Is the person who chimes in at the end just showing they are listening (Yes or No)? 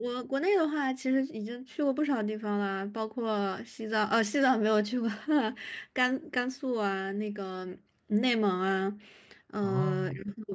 Yes